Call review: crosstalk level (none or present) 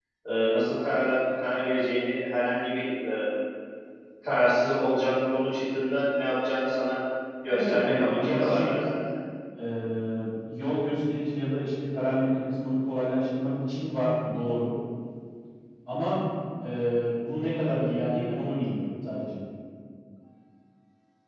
present